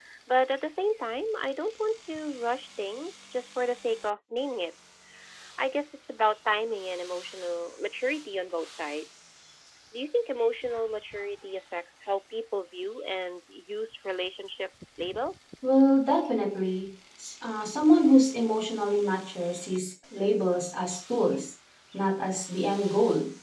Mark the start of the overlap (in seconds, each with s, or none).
none